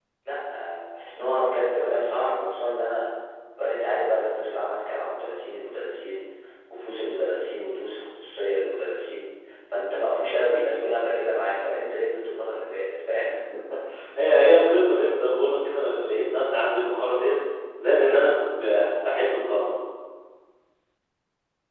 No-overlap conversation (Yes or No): Yes